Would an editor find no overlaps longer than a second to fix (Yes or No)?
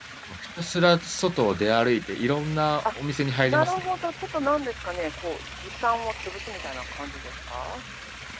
Yes